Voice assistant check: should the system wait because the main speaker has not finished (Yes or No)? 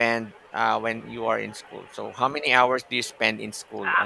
No